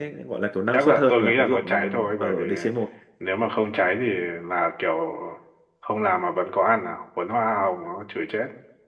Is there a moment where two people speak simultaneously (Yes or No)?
Yes